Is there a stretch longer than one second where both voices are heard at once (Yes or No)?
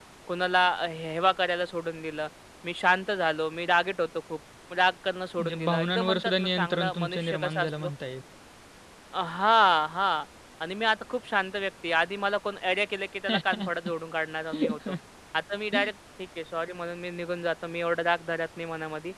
Yes